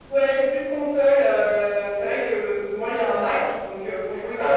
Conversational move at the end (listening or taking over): listening